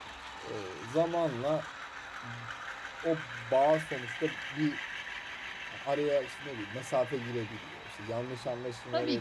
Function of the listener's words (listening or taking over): taking over